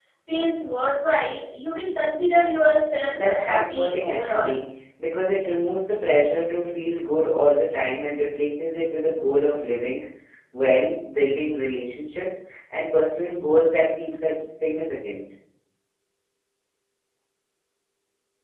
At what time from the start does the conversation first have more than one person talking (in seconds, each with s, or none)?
3.1 s